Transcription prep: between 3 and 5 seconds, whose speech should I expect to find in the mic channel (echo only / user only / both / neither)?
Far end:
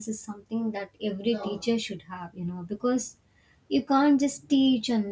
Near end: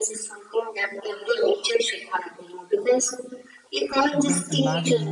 both